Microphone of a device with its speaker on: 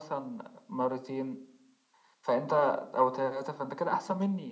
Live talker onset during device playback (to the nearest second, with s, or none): none